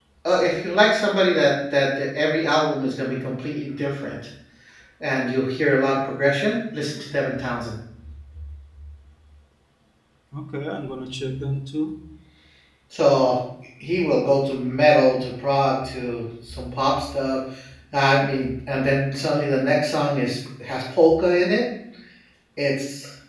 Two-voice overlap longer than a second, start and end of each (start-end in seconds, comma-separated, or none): none